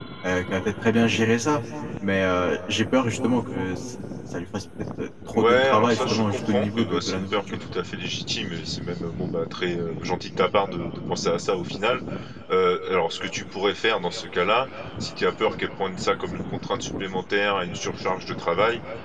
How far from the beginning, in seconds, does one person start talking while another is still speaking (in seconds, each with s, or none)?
5.3 s